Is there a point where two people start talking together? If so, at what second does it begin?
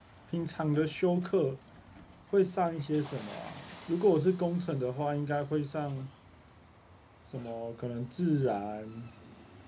none

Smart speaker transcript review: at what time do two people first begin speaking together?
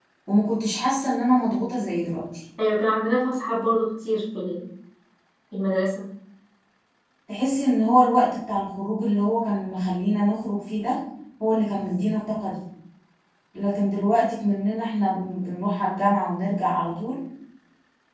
none

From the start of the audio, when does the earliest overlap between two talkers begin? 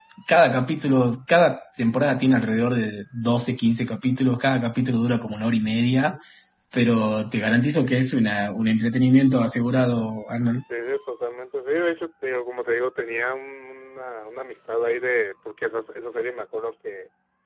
none

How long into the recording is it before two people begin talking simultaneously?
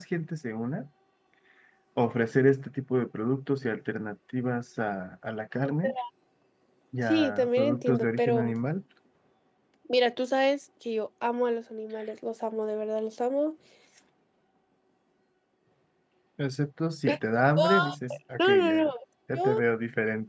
7.1 s

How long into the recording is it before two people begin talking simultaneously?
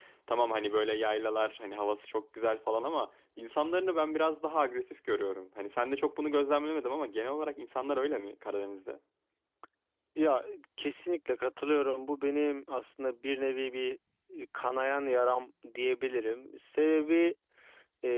none

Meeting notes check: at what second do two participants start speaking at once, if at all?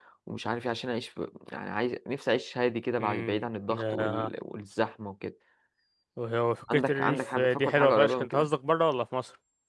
3.0 s

